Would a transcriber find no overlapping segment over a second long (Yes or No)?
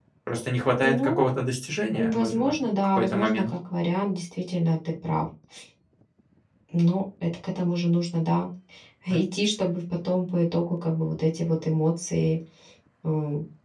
No